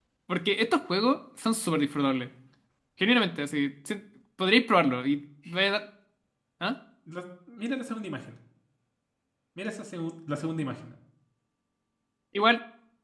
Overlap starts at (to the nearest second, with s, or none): none